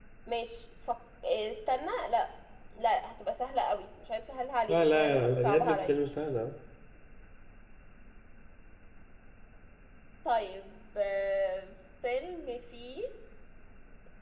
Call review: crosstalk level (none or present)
present